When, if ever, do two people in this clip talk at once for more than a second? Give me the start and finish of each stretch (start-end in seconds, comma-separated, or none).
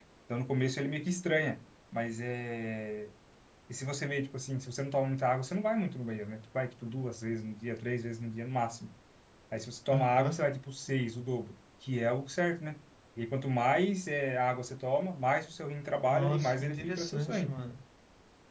16.1-17.6